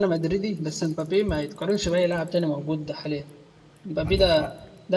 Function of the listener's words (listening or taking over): listening